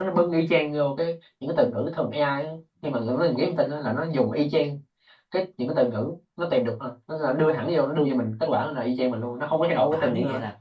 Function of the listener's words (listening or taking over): taking over